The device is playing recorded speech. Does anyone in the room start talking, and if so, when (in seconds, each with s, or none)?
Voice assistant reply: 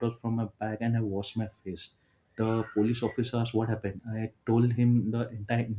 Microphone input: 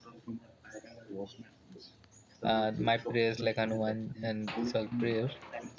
2.4 s